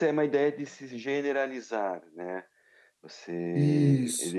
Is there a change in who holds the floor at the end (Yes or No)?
Yes